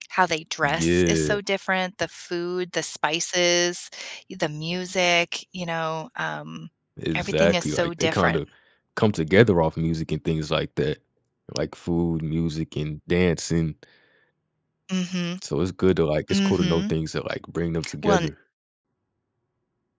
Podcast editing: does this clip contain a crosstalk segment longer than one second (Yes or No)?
Yes